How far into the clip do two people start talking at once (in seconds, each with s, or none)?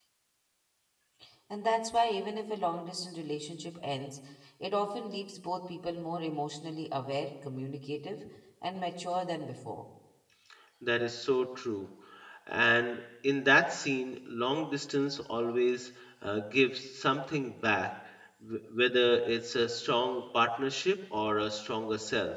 none